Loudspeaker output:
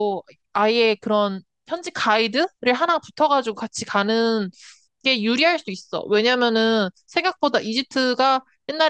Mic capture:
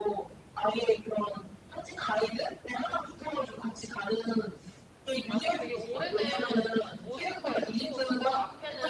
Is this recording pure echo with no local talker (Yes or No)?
No